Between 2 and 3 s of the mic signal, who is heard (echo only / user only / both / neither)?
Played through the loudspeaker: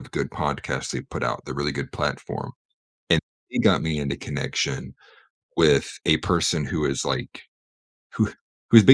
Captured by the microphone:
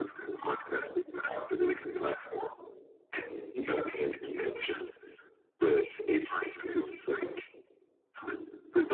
echo only